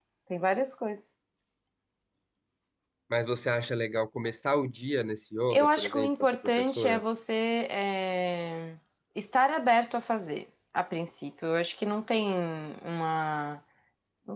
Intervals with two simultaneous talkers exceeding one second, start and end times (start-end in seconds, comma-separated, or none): 5.5-7.0